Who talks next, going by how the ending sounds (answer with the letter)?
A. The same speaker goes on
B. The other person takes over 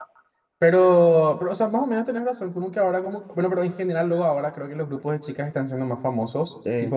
A